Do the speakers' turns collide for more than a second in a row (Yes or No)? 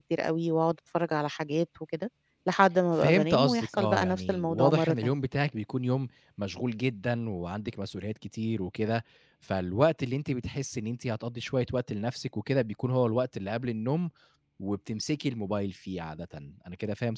Yes